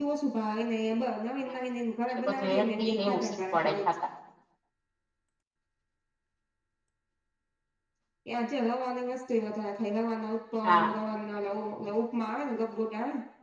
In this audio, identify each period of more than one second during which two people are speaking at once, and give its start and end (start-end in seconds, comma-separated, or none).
2.3-3.9